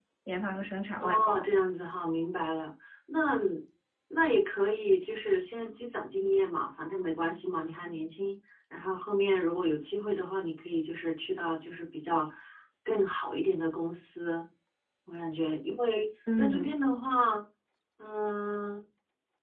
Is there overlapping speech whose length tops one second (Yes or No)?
No